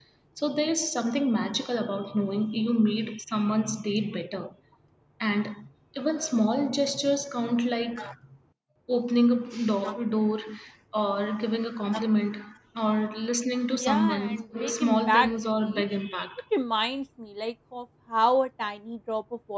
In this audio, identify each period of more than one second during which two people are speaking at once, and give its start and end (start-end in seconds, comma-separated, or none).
13.7-15.8